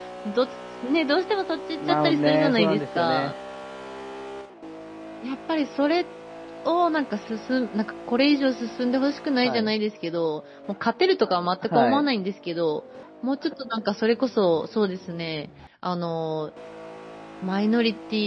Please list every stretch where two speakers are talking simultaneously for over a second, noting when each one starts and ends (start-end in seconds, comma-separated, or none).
1.8-3.3